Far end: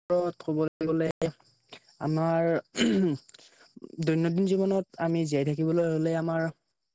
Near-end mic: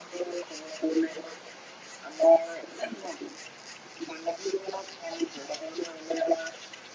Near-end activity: none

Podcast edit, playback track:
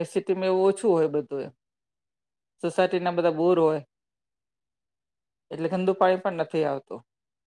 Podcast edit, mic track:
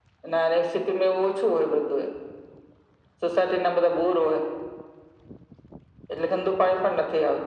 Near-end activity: none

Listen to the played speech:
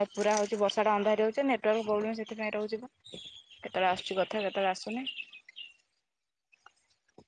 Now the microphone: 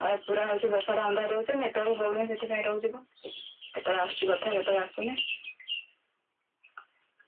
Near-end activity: none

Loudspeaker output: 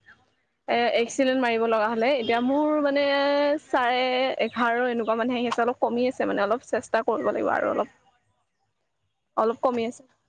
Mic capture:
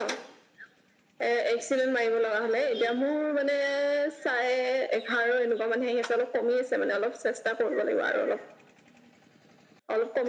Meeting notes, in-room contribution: none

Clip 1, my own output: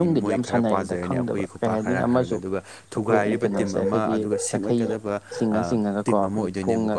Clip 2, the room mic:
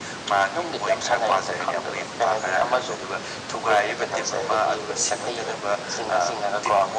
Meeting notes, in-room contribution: none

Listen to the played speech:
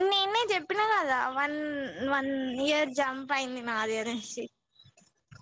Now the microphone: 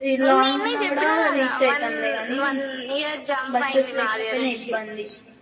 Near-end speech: present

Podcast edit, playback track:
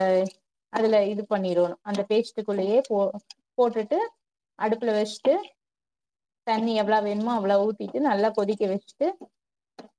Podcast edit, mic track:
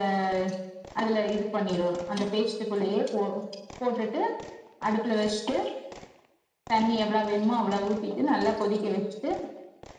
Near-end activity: none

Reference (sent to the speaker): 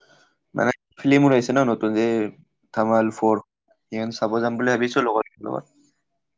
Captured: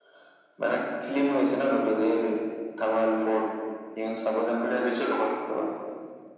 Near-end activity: none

